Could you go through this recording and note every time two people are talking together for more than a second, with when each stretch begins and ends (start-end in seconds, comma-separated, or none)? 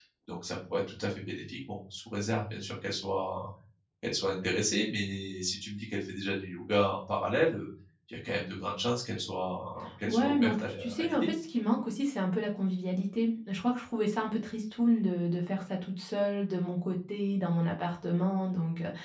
10.1-11.3